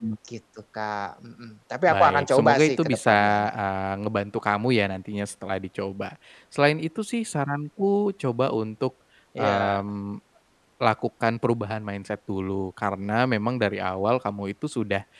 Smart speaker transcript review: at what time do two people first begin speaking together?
1.9 s

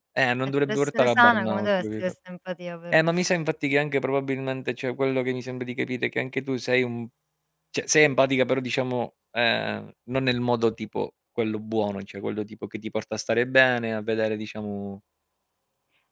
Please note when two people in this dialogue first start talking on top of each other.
0.7 s

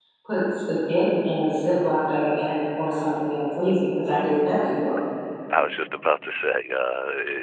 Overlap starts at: none

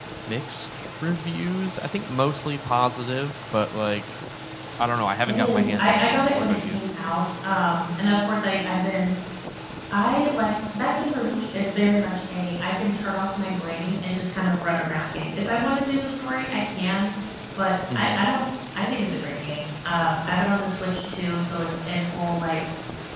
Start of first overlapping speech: 5.2 s

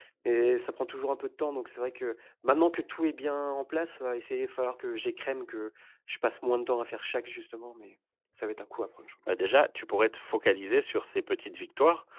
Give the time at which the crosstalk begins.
none

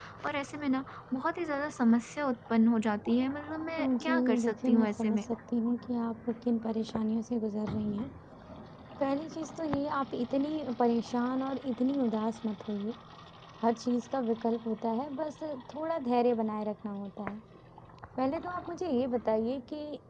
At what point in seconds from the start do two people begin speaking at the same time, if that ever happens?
3.8 s

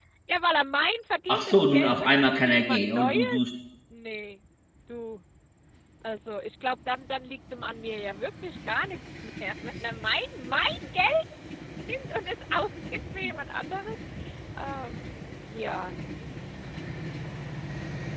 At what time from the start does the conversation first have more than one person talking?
1.3 s

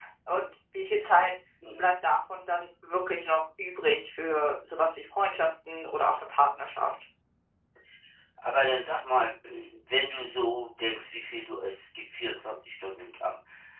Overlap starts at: none

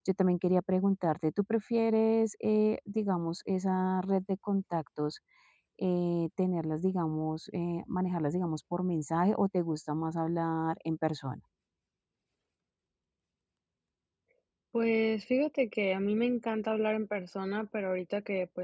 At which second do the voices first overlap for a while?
none

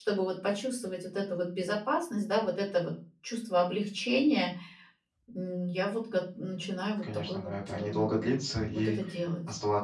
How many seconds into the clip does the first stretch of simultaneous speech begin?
7.0 s

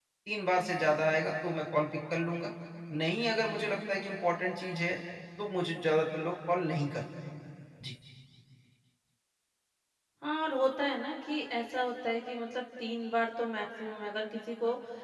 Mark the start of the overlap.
none

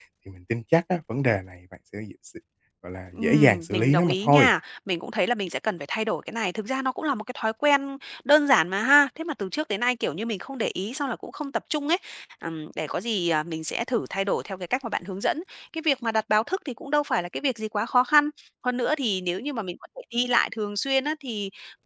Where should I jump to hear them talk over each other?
3.2 s

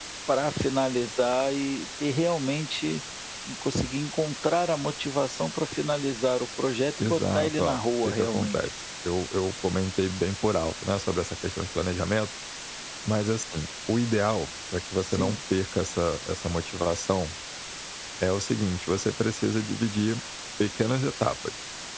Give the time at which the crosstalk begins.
7.0 s

